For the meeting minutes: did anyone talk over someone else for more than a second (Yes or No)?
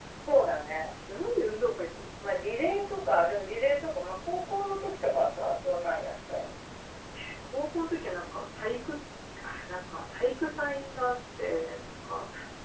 No